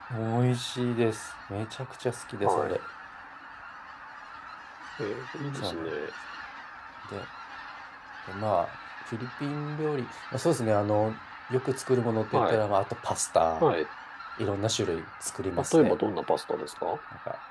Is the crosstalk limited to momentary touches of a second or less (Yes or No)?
Yes